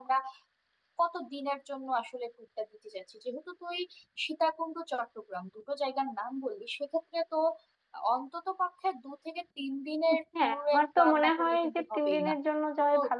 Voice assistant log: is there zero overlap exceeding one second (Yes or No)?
No